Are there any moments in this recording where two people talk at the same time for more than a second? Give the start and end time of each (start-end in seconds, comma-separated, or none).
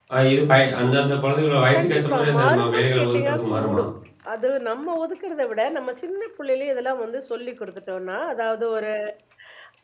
1.8-3.8